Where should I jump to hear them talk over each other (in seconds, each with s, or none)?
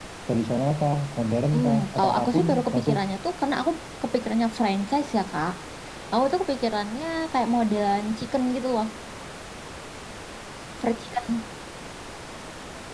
1.5 s